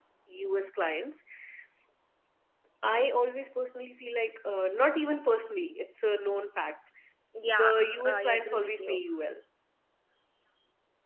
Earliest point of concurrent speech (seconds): 7.5 s

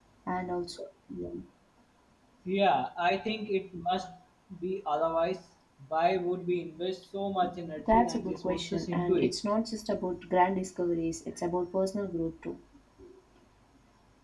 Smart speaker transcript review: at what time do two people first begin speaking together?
7.8 s

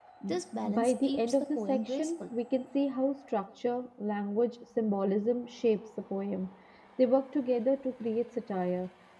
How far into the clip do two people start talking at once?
0.6 s

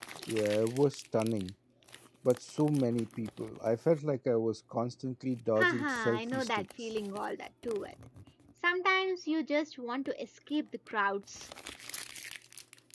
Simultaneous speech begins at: 5.6 s

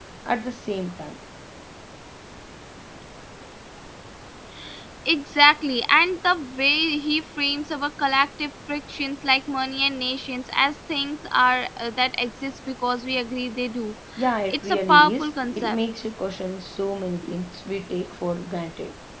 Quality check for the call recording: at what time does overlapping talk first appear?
14.5 s

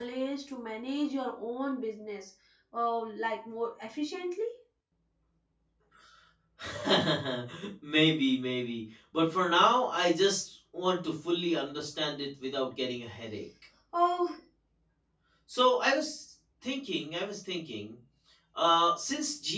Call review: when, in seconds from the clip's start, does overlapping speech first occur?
none

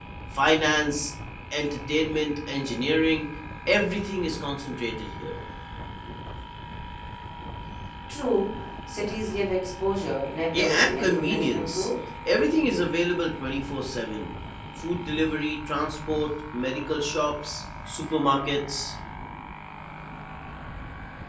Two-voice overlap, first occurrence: 10.5 s

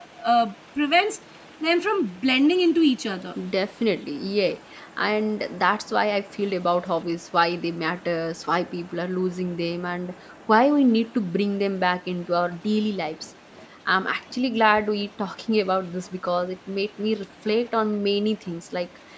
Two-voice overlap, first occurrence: none

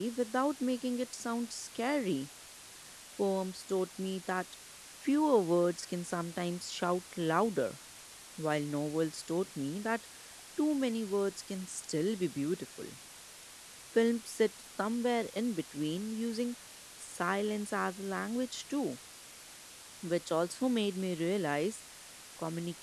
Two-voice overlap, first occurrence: none

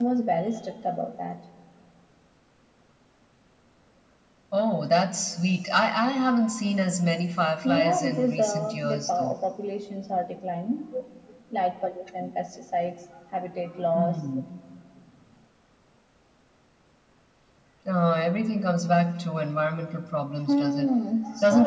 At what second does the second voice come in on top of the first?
7.6 s

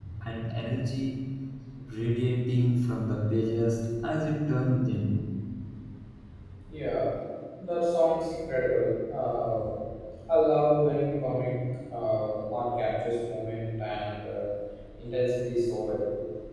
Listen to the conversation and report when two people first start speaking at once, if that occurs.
none

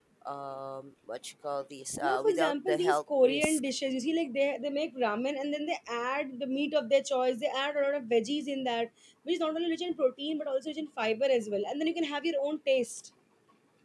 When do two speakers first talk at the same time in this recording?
2.0 s

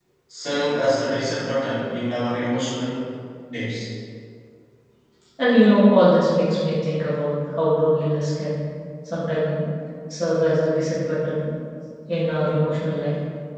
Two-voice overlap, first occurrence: none

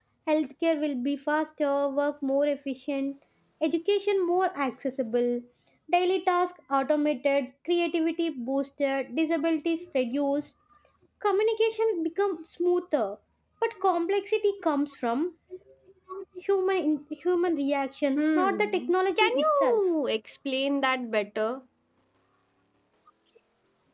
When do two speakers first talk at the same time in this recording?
18.1 s

